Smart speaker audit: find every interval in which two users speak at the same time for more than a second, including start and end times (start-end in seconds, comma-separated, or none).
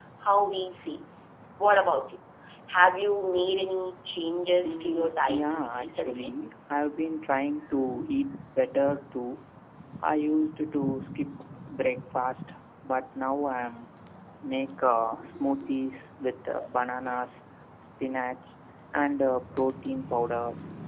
4.6-6.3